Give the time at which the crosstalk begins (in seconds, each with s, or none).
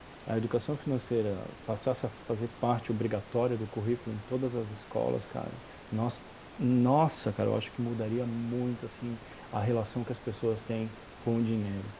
none